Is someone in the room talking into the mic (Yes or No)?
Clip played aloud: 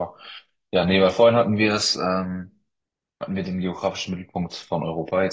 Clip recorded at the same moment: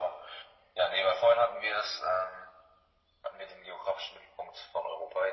No